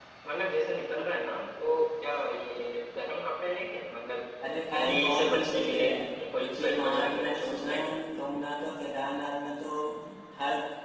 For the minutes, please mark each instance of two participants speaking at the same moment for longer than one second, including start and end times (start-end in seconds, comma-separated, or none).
4.7-5.9, 6.4-7.9